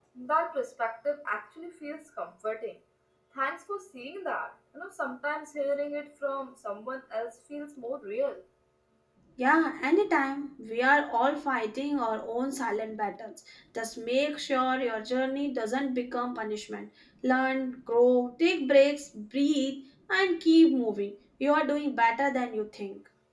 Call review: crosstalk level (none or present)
none